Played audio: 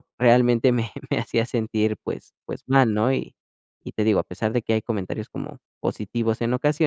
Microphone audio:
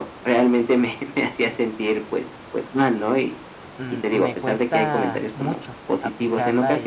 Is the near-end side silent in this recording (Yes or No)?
No